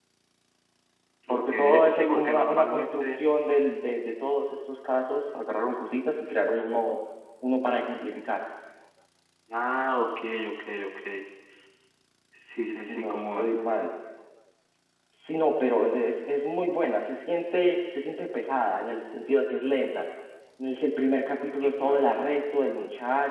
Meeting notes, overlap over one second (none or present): present